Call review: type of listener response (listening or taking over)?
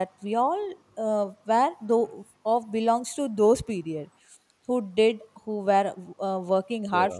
listening